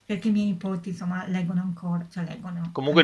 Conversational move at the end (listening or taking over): taking over